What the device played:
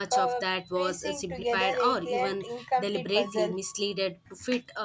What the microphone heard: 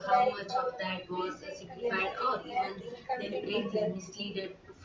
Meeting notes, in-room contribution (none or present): none